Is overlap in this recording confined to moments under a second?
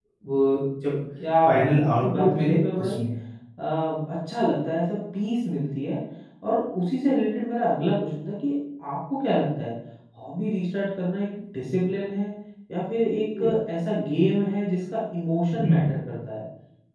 No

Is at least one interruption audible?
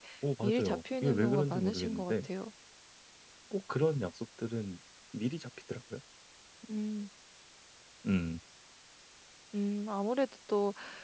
Yes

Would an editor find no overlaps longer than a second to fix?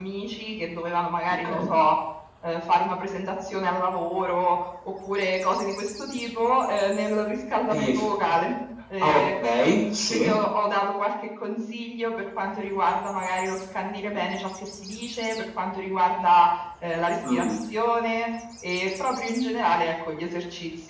Yes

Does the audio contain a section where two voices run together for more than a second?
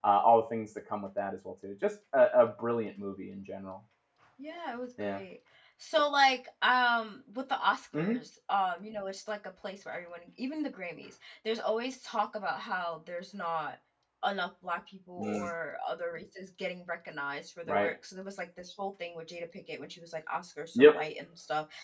No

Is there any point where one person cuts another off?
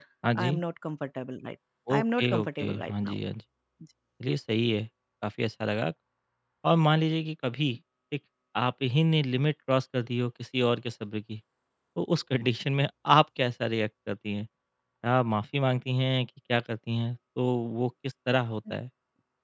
Yes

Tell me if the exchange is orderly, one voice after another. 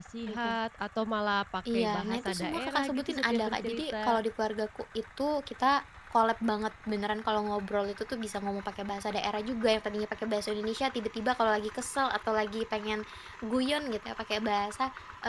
No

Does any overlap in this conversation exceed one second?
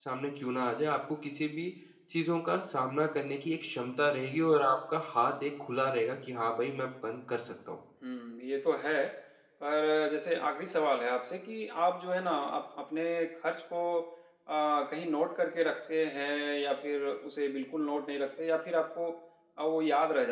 No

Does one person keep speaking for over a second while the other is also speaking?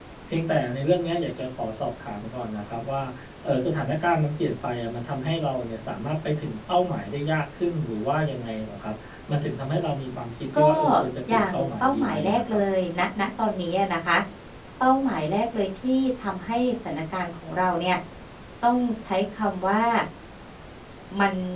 Yes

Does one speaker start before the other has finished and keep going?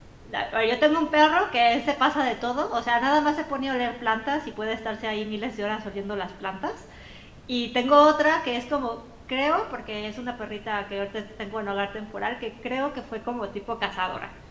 No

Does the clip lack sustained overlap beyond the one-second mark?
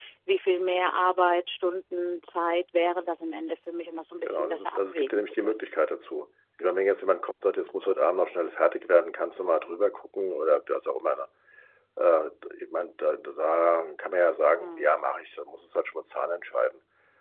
No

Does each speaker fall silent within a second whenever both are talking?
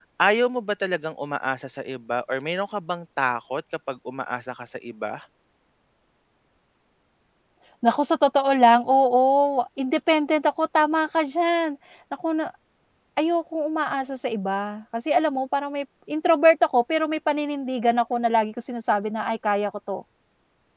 Yes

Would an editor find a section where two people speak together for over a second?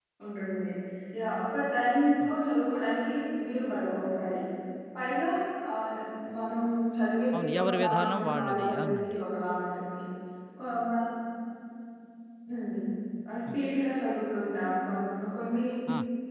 Yes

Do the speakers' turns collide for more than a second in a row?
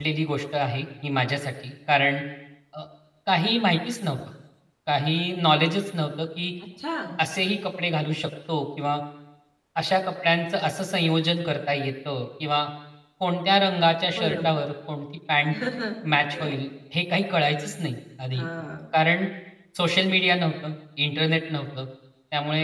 No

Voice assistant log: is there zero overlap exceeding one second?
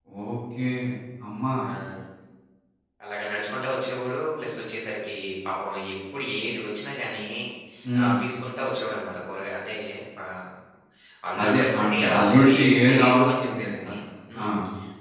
No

